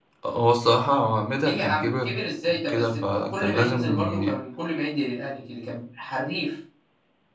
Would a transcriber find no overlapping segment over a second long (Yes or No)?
No